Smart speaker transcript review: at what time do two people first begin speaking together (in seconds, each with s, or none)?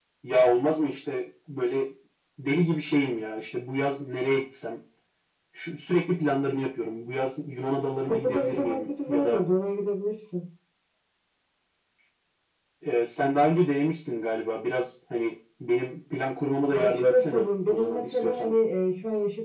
8.0 s